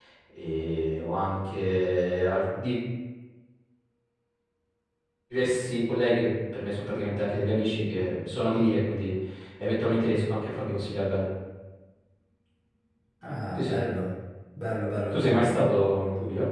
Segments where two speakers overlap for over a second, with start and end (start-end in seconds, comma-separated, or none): none